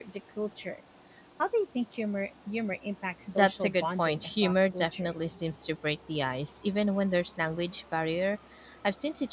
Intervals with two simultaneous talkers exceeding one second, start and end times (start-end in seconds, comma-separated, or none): 3.3-5.2